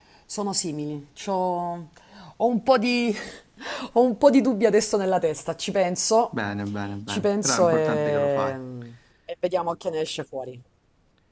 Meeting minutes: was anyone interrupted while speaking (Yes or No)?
Yes